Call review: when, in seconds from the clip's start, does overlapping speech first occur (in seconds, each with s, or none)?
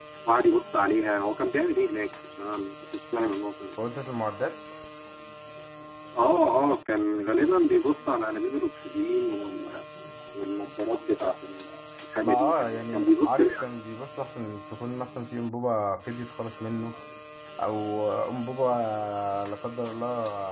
12.2 s